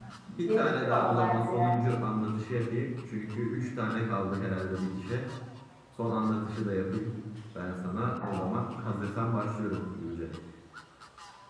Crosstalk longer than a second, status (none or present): present